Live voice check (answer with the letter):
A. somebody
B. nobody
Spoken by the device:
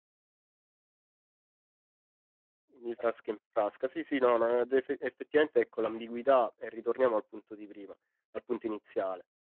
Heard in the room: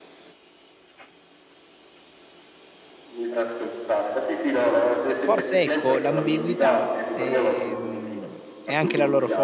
A